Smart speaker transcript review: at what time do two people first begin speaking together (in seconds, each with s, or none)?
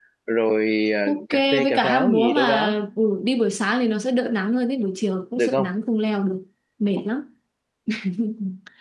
1.1 s